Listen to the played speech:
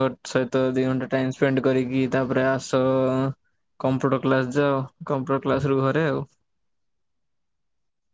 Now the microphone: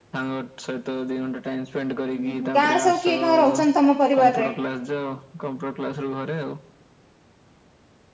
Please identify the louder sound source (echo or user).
user